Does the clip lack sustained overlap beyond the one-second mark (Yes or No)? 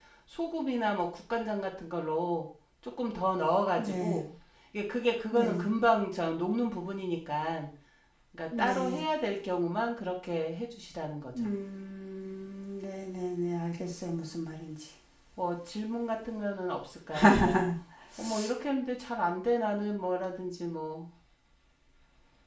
Yes